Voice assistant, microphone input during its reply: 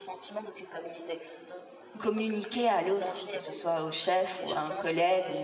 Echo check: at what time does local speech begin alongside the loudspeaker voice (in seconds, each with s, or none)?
2.0 s